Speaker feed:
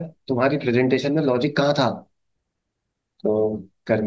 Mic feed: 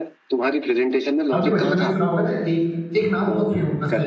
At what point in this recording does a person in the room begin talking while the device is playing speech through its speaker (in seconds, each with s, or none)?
1.3 s